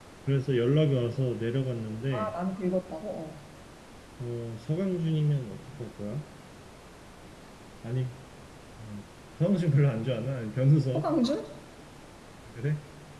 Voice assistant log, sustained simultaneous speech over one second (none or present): none